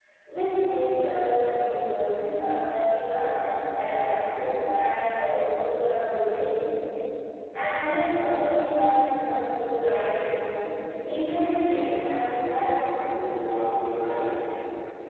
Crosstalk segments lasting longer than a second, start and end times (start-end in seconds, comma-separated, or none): 11.7-12.9